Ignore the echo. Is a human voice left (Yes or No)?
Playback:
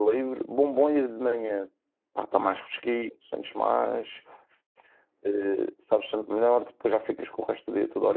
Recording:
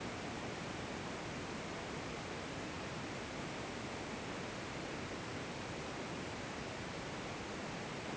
No